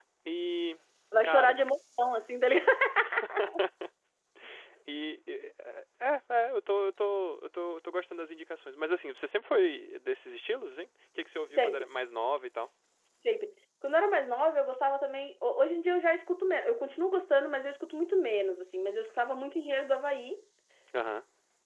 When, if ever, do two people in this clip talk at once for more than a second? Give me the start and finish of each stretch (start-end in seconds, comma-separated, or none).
none